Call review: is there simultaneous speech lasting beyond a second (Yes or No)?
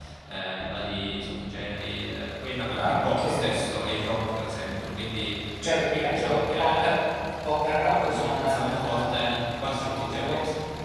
Yes